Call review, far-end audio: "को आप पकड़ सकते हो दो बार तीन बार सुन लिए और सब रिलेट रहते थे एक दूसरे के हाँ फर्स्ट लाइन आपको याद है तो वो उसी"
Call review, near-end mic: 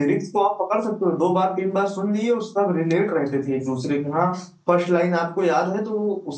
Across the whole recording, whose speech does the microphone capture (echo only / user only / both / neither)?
echo only